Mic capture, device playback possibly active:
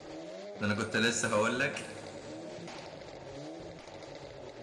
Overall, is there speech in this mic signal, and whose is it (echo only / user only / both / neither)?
user only